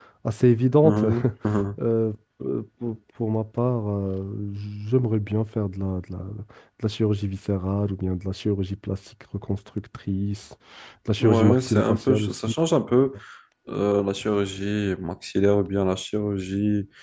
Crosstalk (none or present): present